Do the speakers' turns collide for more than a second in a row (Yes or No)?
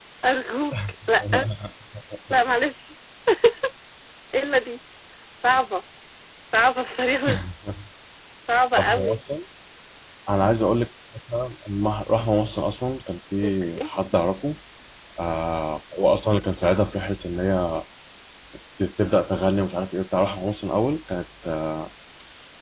No